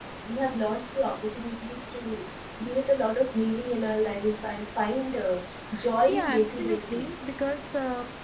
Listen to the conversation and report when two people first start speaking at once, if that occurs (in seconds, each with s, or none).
6.1 s